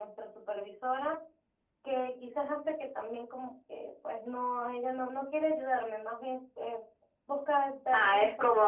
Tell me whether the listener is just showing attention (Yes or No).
No